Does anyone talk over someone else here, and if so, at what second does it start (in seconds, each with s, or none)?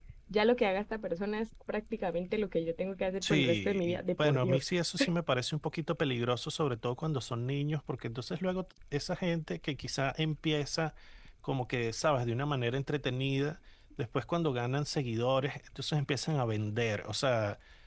3.2 s